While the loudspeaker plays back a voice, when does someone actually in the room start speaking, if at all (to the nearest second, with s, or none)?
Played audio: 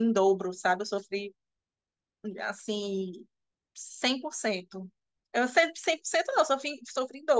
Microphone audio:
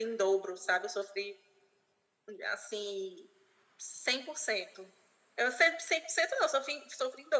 none